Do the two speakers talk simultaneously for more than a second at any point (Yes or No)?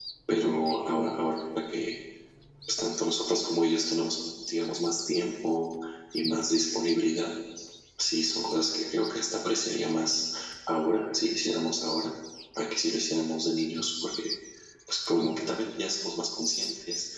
No